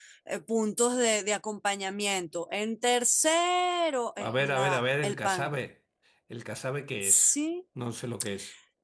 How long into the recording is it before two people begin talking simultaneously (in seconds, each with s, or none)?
4.3 s